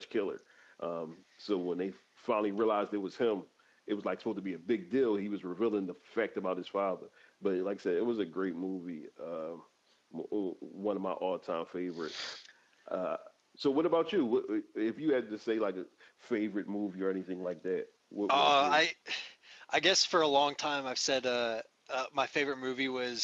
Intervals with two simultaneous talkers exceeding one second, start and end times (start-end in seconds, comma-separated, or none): none